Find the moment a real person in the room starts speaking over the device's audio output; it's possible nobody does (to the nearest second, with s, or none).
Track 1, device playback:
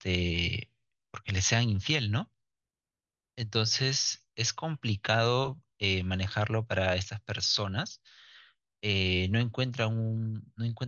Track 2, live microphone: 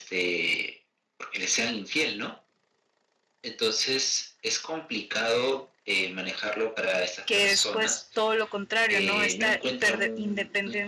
7 s